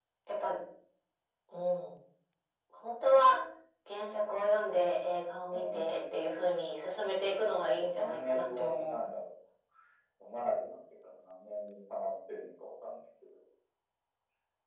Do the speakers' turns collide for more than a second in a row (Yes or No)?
Yes